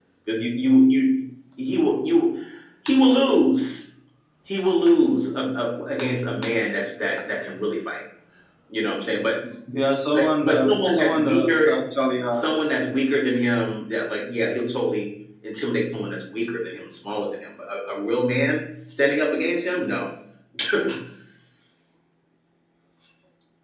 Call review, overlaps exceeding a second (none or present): present